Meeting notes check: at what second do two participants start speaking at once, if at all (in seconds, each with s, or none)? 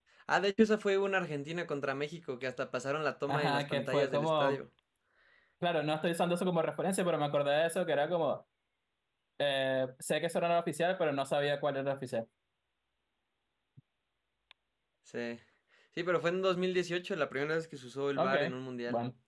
3.3 s